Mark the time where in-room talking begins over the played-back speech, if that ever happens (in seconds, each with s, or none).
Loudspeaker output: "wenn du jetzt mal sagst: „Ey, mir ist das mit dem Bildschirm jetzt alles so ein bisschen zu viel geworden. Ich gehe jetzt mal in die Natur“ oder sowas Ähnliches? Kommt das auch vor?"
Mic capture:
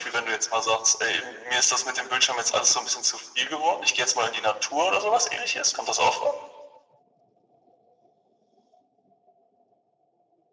none